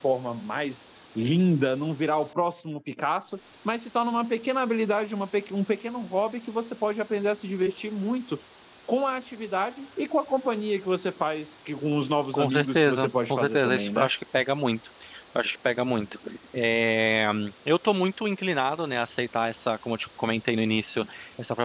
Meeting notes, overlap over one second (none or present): present